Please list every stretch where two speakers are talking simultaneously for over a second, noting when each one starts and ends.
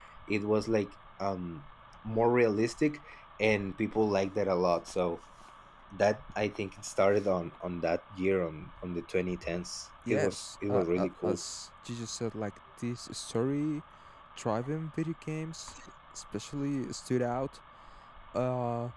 10.1-11.4

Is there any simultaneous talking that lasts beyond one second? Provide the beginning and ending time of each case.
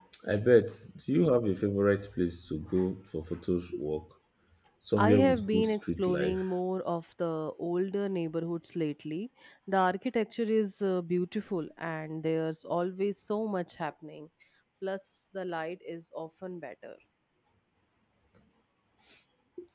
5.0-6.4

